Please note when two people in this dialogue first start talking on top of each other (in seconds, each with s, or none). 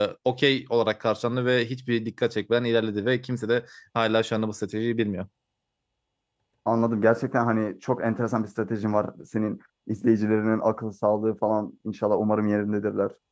none